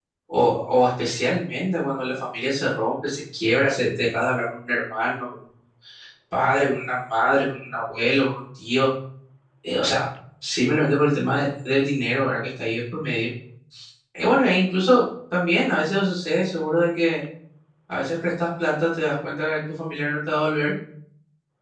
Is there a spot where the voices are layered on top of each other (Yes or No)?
No